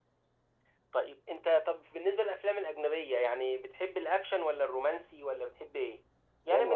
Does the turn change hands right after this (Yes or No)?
Yes